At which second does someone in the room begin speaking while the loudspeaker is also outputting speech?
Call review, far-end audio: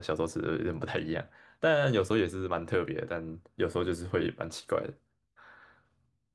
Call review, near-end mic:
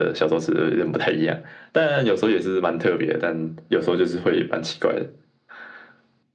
none

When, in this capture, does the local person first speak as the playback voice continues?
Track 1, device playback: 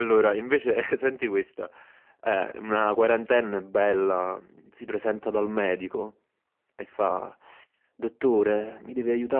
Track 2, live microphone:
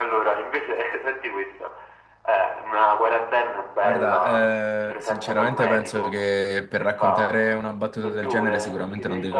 3.8 s

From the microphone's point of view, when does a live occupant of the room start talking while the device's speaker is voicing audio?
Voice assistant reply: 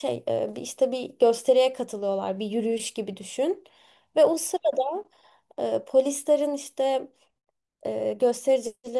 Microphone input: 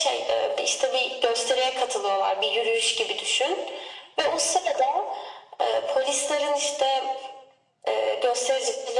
none

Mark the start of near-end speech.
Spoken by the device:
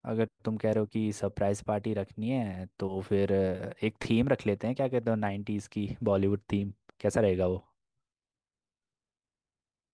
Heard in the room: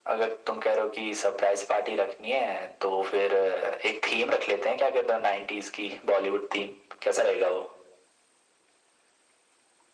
none

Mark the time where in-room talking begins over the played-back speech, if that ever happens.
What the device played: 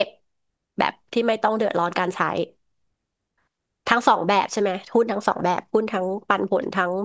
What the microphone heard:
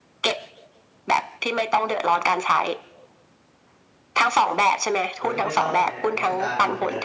5.2 s

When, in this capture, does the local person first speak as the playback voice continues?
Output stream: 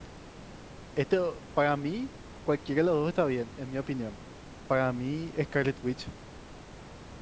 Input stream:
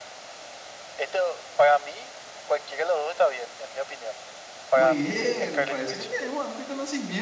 4.7 s

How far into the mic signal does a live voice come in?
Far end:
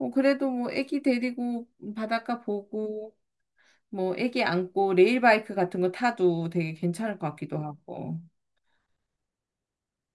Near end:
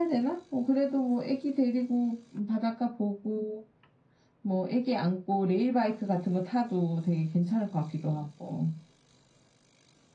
none

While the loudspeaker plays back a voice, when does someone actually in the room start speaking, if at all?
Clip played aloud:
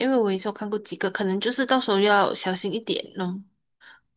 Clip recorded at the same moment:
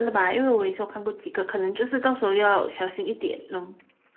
none

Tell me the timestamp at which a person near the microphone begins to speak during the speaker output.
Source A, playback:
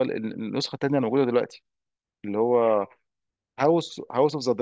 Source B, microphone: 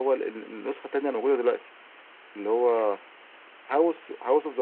none

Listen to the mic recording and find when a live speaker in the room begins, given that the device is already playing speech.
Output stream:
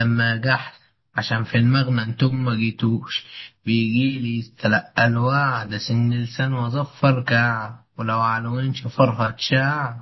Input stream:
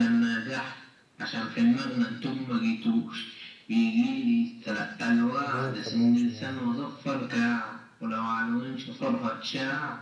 5.4 s

